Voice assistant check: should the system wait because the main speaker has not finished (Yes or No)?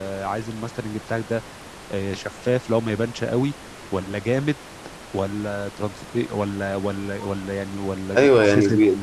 No